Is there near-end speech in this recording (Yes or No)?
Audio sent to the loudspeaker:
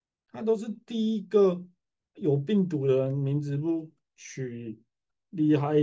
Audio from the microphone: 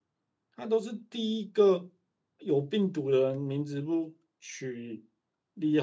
No